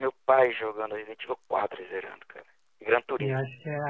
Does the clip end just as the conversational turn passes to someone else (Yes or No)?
Yes